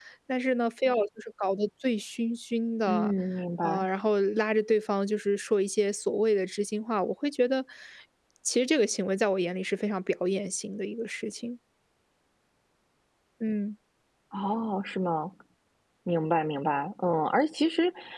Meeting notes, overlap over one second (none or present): none